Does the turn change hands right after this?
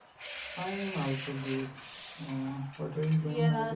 Yes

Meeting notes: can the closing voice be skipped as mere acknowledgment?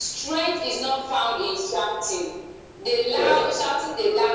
Yes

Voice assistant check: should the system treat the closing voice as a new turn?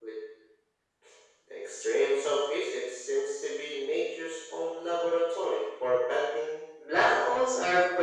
Yes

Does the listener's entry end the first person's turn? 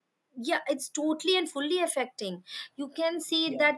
No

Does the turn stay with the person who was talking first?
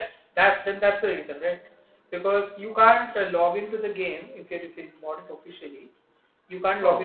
Yes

